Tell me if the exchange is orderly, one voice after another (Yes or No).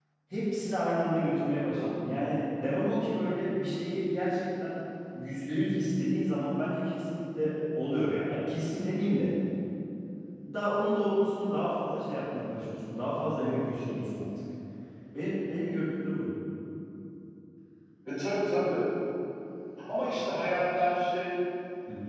Yes